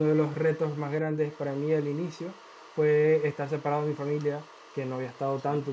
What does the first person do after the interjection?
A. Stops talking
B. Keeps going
B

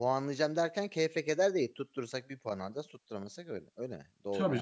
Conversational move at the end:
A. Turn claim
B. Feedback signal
A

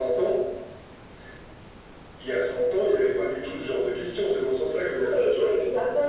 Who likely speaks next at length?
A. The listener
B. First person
A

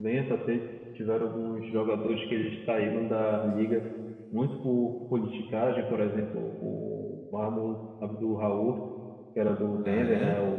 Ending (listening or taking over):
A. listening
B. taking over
A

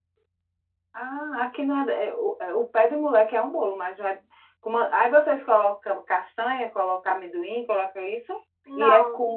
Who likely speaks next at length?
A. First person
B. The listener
A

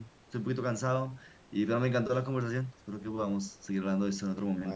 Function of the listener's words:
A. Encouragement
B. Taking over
B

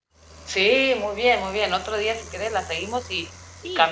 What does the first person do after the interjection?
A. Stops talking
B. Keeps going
B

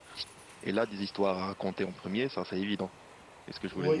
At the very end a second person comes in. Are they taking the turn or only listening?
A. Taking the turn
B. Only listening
A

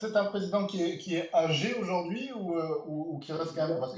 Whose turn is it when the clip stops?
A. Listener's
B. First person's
B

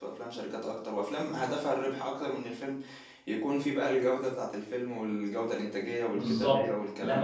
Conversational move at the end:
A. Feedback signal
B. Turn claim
B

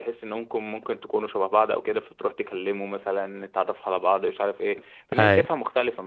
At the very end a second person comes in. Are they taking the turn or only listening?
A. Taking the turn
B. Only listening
B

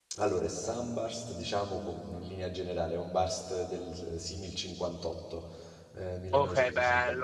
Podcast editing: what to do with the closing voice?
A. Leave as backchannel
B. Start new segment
B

